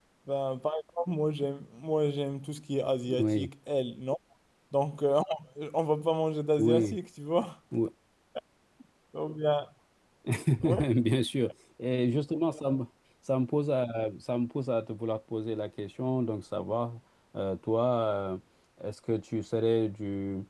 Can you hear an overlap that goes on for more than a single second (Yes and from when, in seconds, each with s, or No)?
No